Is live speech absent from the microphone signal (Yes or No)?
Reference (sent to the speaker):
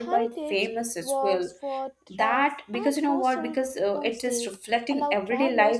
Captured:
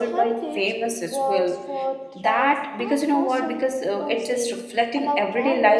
Yes